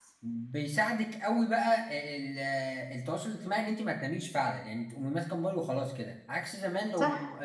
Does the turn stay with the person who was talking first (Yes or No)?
Yes